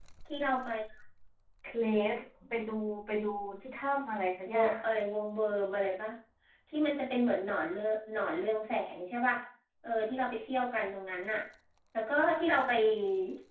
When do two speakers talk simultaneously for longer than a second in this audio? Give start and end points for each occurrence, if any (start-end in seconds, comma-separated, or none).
none